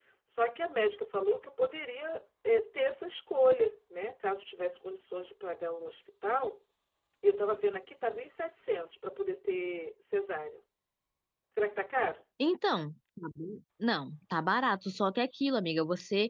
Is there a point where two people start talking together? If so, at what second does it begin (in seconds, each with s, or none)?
none